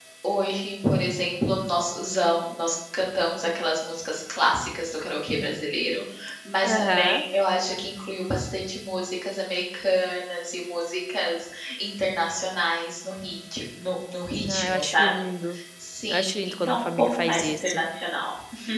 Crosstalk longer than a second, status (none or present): present